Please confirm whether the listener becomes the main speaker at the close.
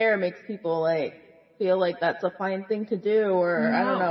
No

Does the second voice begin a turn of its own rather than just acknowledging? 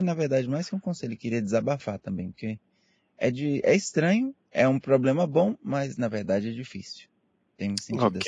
Yes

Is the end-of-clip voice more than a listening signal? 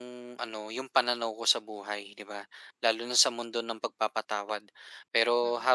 No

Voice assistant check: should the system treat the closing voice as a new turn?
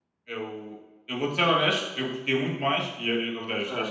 No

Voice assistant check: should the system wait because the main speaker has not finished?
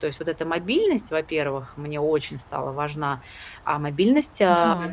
Yes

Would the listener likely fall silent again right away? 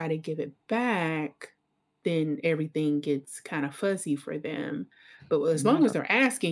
Yes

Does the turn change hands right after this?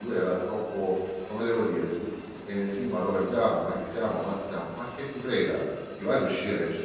No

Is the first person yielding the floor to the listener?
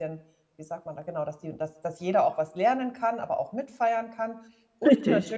No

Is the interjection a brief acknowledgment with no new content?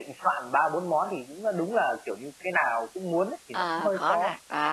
No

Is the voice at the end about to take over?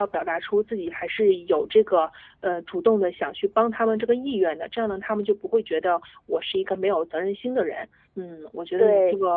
No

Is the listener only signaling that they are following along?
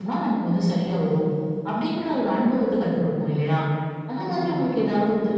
Yes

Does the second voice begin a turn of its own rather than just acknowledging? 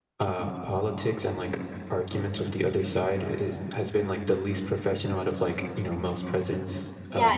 Yes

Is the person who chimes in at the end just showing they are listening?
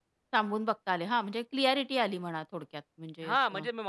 No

